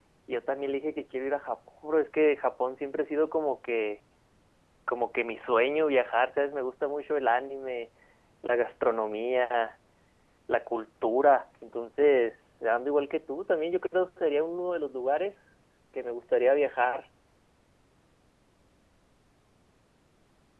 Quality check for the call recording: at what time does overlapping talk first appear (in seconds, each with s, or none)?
none